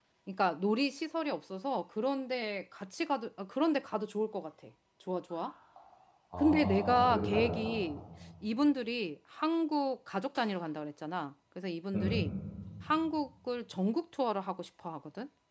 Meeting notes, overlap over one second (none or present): present